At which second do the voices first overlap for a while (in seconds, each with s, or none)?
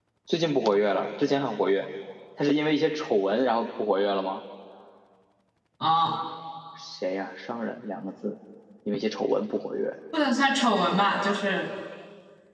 none